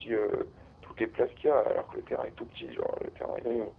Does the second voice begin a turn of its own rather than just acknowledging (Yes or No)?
Yes